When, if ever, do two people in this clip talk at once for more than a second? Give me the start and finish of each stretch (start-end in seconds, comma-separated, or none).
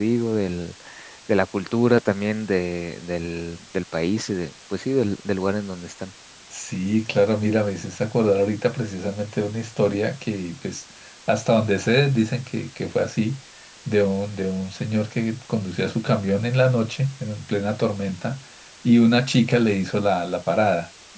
none